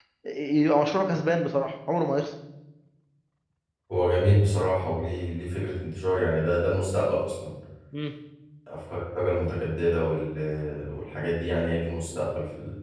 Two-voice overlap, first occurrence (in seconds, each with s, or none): none